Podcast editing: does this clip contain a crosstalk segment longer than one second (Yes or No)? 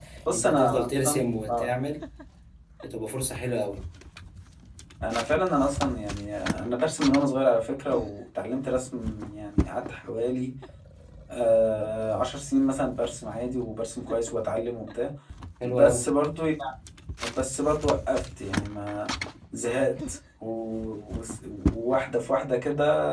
Yes